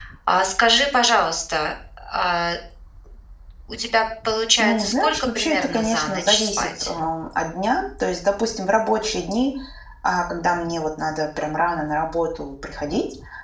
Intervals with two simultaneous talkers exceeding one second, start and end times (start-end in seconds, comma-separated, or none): 4.6-6.9